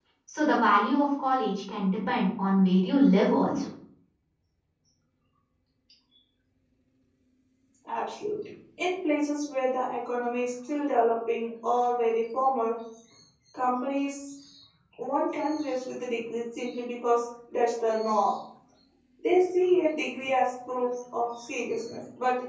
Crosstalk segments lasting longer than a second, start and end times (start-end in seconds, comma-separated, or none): none